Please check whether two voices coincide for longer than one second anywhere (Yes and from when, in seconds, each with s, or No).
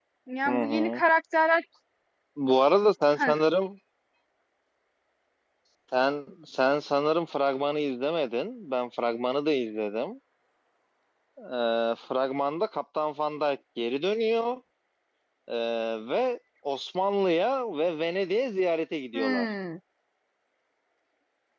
No